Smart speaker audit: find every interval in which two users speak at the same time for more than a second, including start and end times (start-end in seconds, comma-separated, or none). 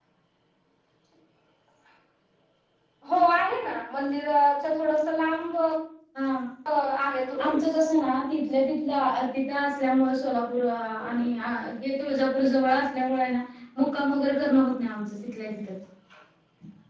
none